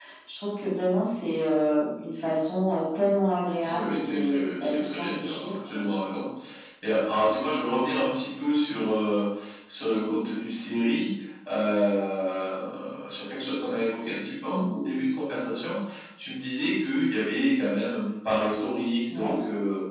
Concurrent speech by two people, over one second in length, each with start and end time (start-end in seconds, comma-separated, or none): 3.7-5.8